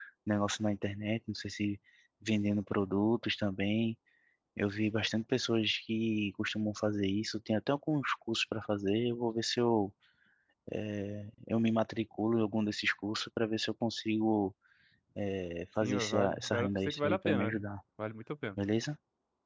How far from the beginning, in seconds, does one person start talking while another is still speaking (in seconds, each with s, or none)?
15.8 s